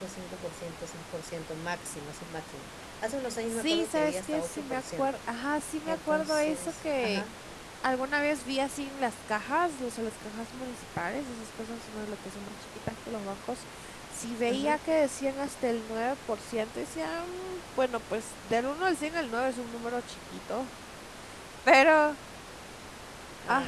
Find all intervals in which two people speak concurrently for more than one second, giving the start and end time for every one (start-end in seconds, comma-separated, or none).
3.5-5.2, 5.9-7.2